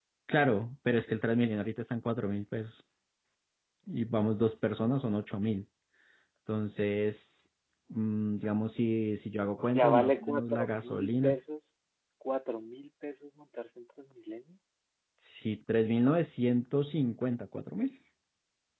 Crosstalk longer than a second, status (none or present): present